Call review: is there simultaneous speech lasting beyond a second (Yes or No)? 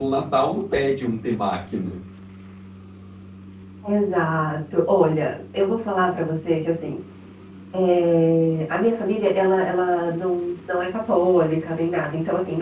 No